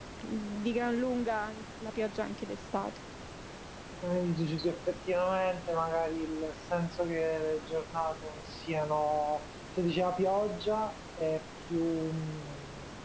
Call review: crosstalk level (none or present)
none